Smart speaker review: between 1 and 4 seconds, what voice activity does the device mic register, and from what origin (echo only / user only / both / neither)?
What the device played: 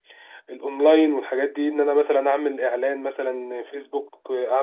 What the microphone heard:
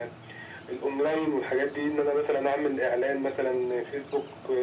echo only